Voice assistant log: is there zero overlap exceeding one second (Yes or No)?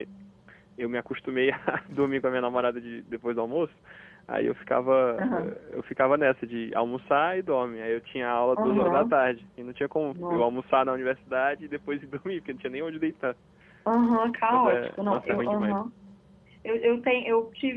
No